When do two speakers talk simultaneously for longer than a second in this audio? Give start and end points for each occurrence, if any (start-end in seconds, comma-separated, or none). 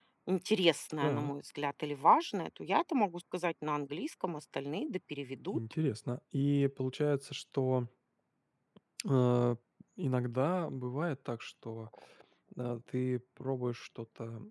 none